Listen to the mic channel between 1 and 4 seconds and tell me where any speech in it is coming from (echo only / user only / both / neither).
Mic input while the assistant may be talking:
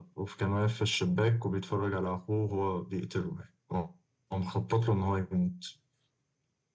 echo only